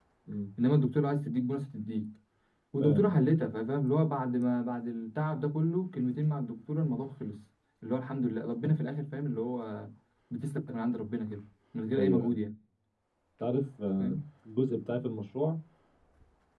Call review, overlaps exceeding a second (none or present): none